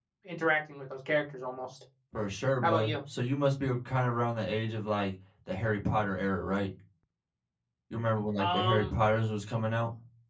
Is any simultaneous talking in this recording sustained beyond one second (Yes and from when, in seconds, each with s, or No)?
No